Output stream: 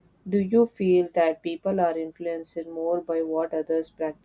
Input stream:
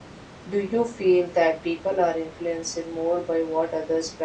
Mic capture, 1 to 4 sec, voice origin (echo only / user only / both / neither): echo only